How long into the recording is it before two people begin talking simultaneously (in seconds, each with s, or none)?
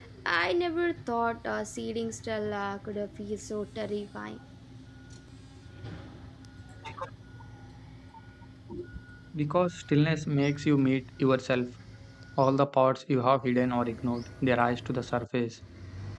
none